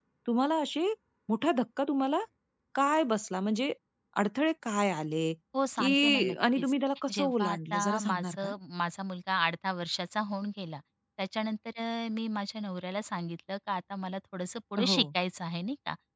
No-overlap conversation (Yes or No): No